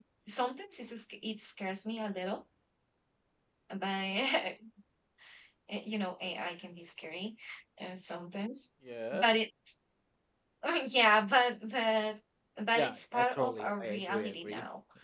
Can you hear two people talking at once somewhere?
Yes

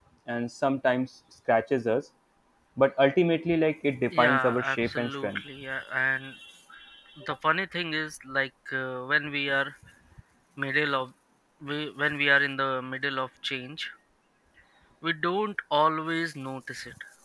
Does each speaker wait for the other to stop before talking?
No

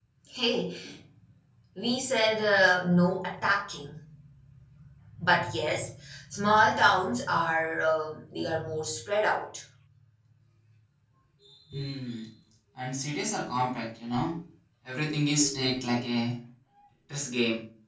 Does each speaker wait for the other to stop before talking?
Yes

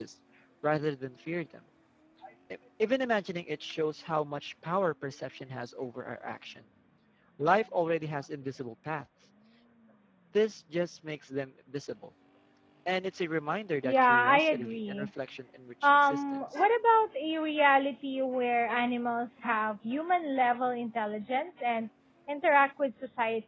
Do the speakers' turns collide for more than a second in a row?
Yes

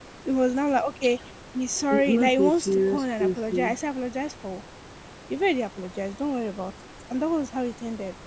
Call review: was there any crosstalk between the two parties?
Yes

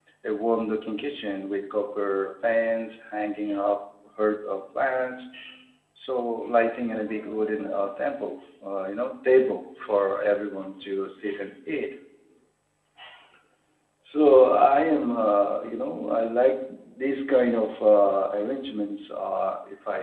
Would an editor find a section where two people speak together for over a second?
No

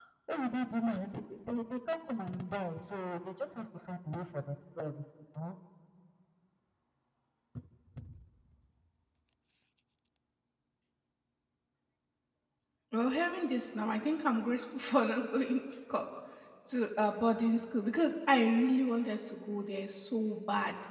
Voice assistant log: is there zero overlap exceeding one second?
Yes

